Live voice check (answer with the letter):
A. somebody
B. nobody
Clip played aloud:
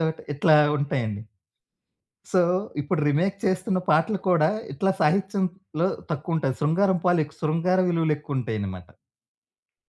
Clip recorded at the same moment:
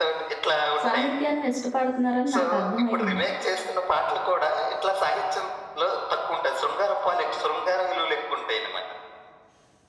A